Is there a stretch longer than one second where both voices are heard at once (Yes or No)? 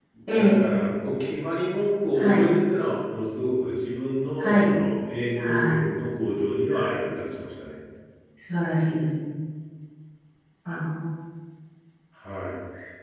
No